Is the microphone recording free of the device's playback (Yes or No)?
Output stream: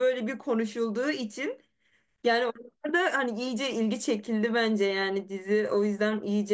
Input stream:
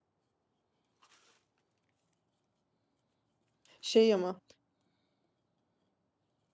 Yes